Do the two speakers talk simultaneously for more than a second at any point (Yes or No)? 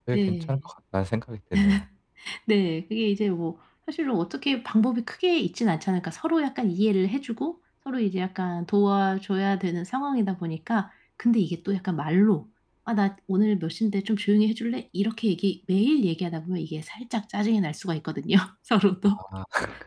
No